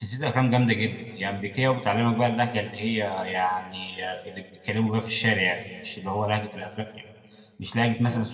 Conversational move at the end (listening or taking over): listening